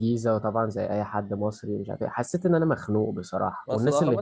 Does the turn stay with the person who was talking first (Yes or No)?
No